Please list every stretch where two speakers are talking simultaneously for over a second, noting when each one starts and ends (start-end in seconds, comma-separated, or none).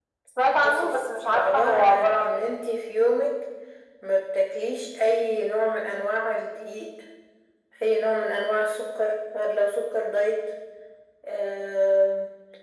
0.6-2.5